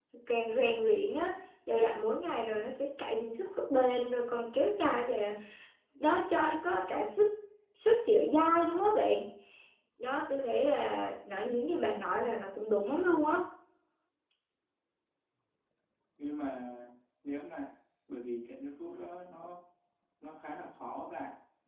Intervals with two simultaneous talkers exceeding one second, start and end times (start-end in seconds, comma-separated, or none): none